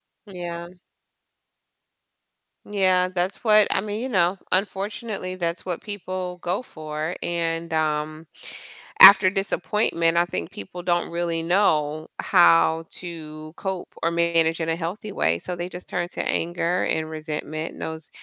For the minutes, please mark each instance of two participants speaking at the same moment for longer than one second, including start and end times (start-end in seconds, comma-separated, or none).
none